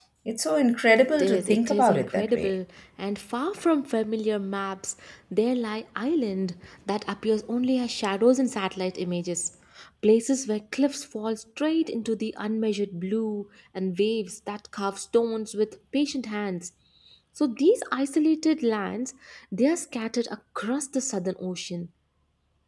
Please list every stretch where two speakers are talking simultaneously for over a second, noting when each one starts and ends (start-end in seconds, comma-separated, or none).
1.0-2.5